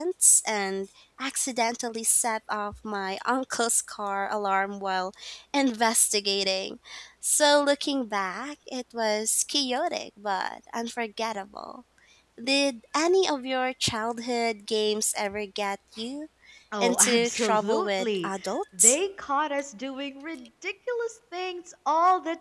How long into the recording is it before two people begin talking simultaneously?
16.8 s

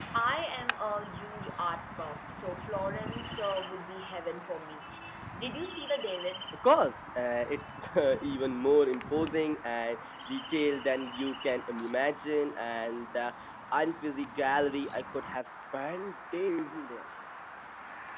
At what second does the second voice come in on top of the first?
none

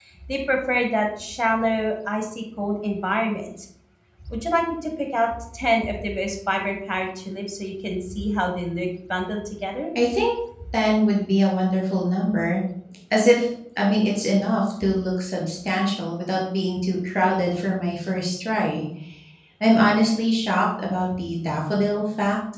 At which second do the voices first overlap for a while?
none

